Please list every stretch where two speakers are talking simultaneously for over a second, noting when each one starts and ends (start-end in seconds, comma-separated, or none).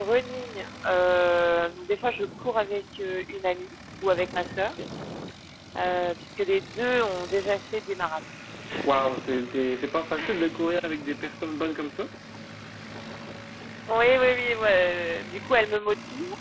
none